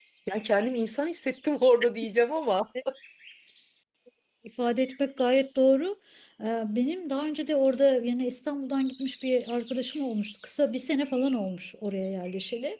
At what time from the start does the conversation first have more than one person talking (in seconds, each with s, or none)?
none